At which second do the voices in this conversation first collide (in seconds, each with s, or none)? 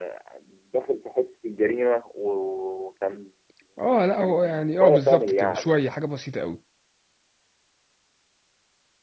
4.2 s